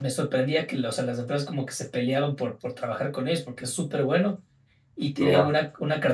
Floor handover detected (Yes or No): No